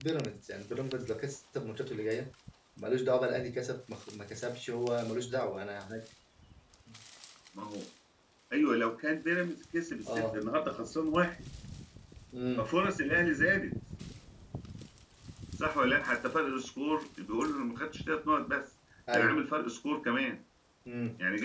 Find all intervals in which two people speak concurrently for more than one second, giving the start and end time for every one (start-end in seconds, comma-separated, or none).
none